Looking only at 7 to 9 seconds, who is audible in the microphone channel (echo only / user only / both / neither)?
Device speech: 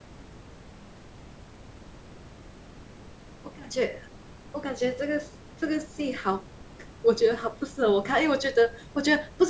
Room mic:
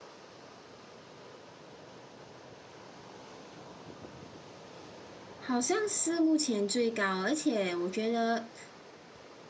user only